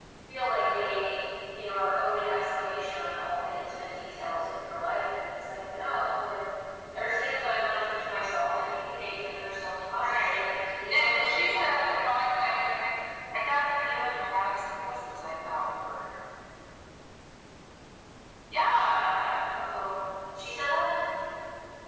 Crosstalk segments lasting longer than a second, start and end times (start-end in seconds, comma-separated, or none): 10.9-12.2